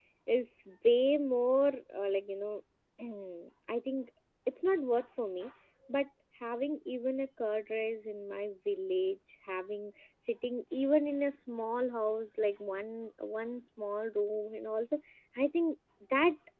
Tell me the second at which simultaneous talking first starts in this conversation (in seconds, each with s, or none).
none